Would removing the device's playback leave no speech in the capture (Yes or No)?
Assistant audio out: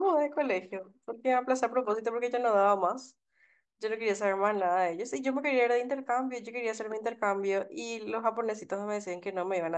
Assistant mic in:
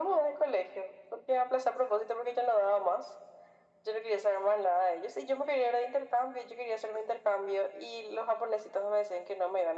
Yes